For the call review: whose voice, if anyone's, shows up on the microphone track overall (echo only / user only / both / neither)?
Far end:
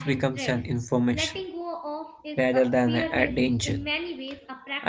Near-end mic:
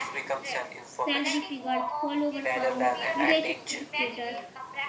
both